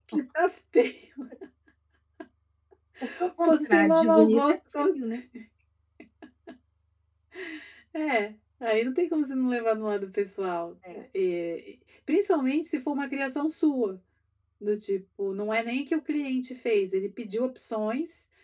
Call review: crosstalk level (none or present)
present